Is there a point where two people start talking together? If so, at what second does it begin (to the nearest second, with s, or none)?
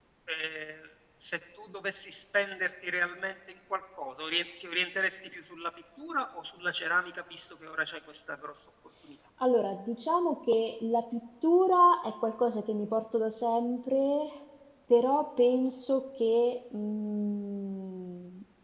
none